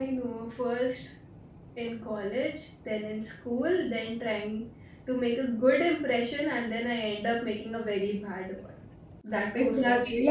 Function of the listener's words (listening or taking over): taking over